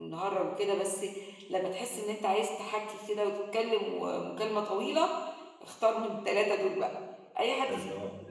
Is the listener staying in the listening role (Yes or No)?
Yes